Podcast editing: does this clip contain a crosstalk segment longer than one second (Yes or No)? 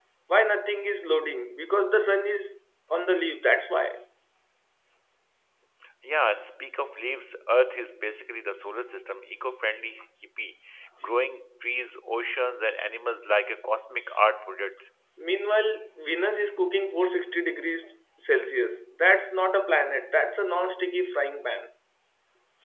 No